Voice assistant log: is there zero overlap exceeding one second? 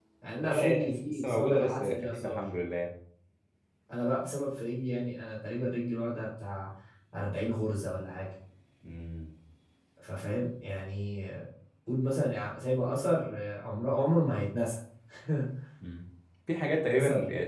No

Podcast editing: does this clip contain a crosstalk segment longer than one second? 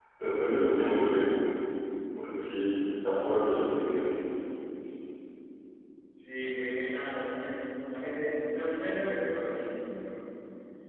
No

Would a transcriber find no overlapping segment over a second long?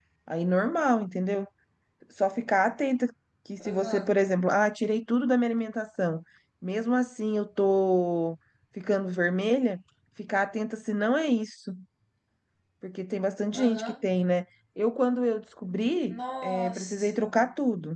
No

